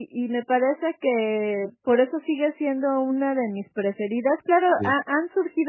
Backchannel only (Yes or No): Yes